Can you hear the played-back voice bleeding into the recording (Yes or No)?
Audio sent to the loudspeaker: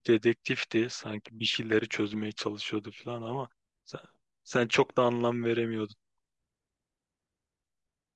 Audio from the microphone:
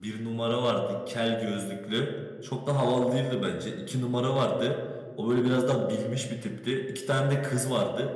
No